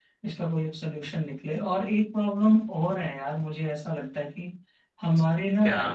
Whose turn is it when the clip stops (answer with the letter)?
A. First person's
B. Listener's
A